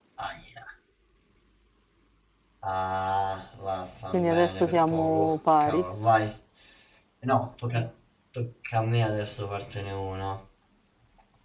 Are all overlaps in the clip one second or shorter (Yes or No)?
No